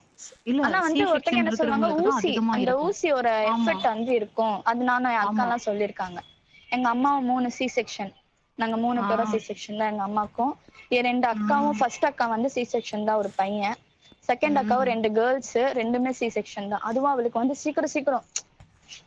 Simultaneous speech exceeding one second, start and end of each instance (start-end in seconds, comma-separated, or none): 0.7-2.9